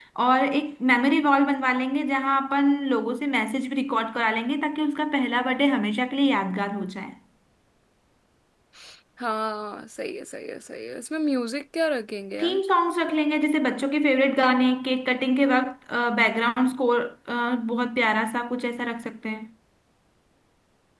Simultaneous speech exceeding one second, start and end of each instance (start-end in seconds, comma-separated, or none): none